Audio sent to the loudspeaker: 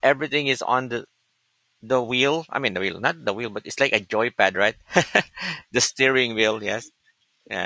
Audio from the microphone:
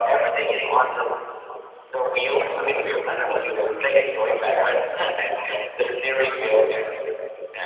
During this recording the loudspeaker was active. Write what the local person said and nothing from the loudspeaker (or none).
Also, forget about the name. I think it's a